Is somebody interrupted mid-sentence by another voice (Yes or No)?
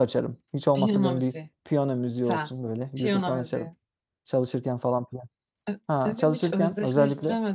Yes